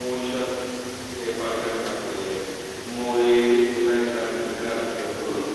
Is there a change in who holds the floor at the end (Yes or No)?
No